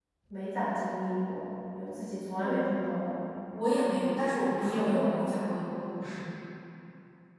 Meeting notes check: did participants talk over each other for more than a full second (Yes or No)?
No